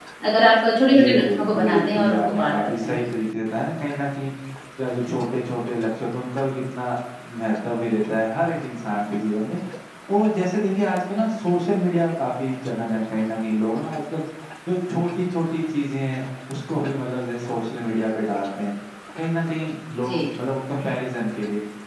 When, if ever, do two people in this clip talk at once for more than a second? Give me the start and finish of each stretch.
1.0-3.0

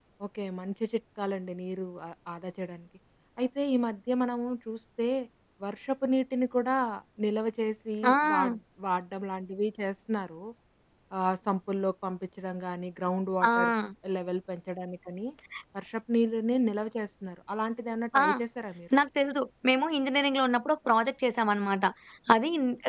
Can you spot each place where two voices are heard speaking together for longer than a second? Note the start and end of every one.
none

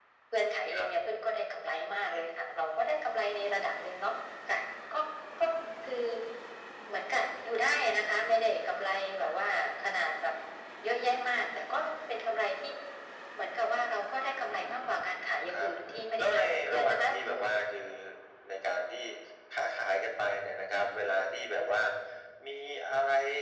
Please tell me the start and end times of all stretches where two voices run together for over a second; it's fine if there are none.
16.2-17.4

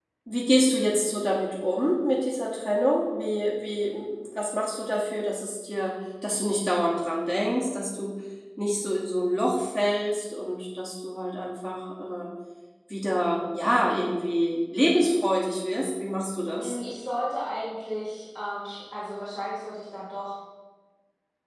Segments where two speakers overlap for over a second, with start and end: none

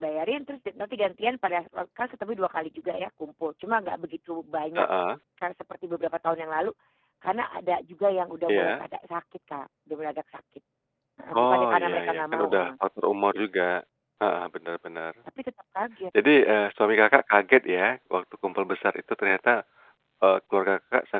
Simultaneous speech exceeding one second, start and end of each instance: 11.4-12.7

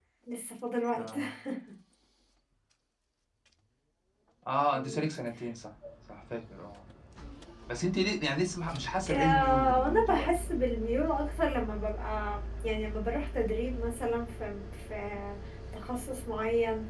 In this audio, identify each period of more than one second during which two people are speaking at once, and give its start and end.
9.1-10.5

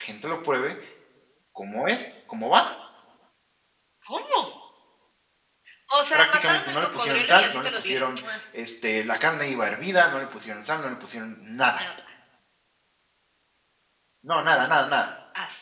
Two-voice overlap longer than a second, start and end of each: 6.1-8.3

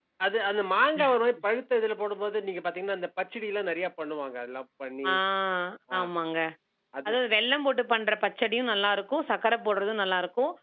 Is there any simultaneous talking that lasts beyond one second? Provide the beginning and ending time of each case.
none

